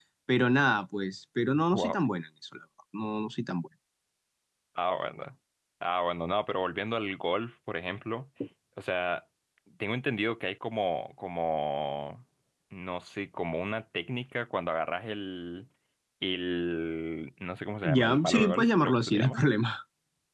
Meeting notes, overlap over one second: present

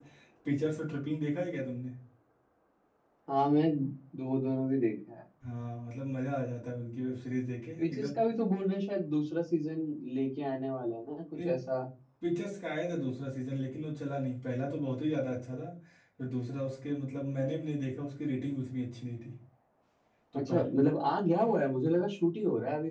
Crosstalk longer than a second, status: none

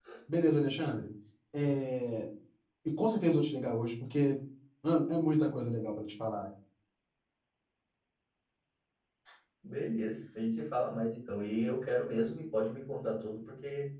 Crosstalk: none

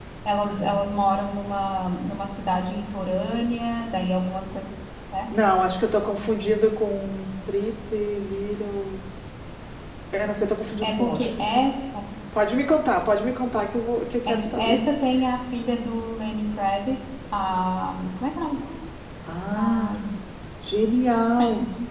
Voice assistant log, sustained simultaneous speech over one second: none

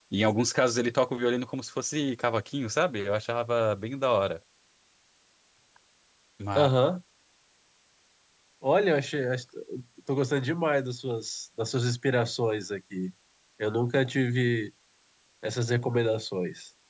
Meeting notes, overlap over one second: none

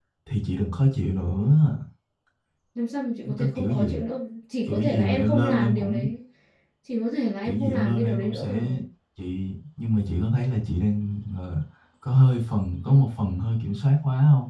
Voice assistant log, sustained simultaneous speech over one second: present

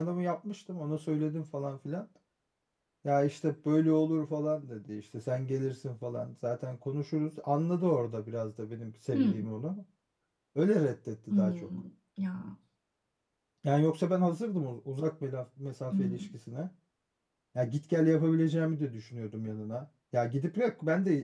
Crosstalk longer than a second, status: none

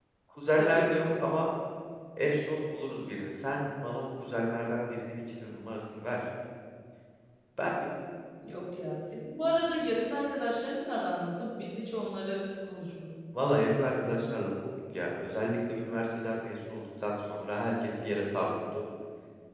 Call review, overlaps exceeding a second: none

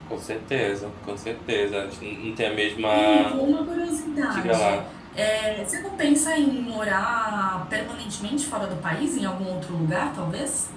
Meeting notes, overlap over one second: none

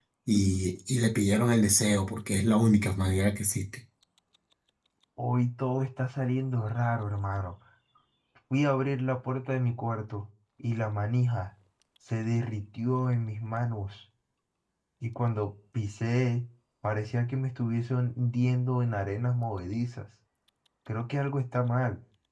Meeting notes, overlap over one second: none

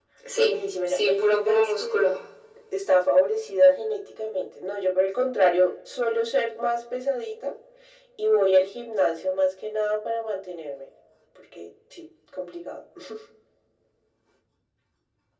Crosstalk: present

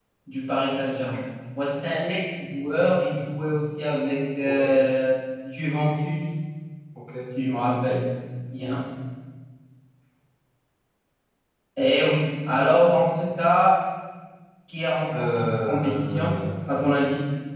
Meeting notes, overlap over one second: present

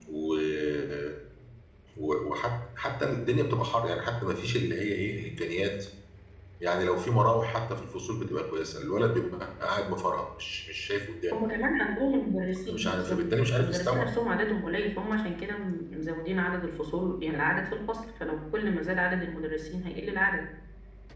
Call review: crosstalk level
present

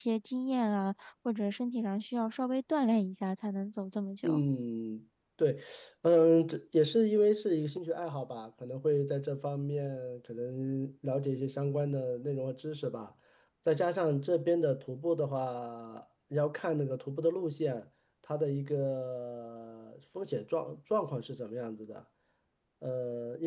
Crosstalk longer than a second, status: none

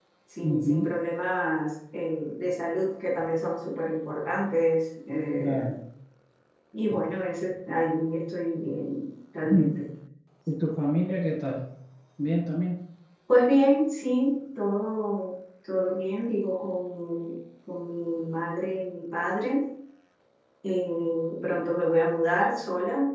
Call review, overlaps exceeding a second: none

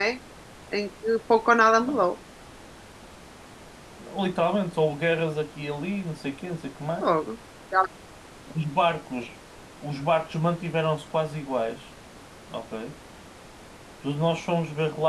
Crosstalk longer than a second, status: none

